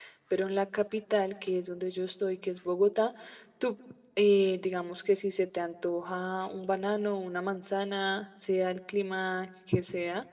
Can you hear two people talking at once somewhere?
No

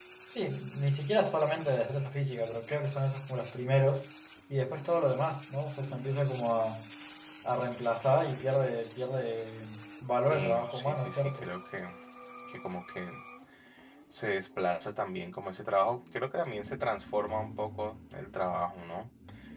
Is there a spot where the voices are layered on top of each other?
Yes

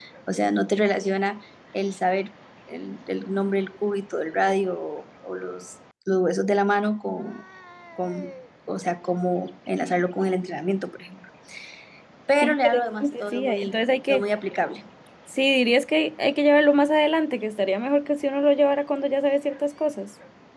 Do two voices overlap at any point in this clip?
Yes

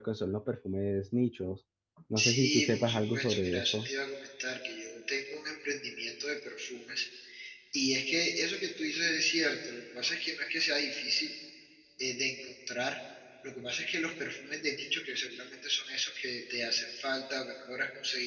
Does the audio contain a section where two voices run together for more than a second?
Yes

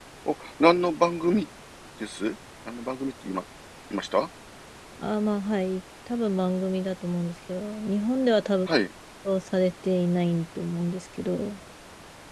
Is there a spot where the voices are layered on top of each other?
No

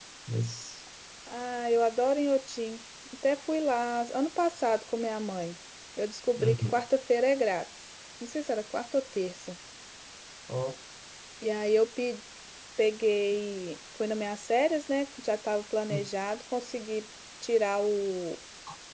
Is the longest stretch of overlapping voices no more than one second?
Yes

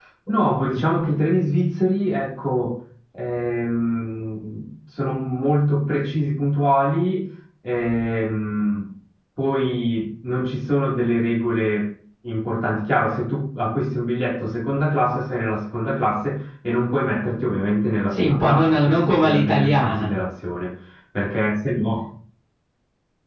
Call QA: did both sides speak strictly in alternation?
No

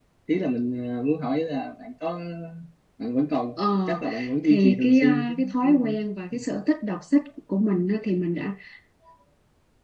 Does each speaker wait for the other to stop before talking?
No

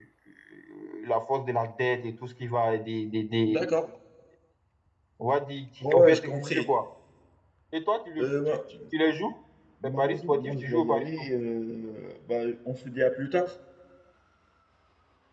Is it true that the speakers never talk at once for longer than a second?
No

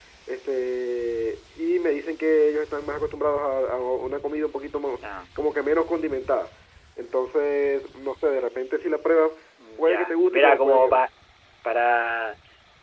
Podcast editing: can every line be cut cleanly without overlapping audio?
No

